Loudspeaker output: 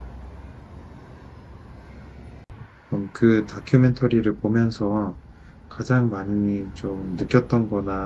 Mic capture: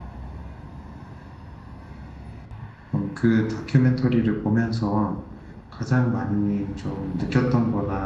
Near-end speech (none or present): none